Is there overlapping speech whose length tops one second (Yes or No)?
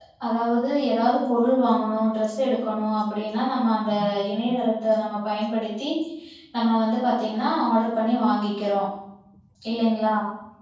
No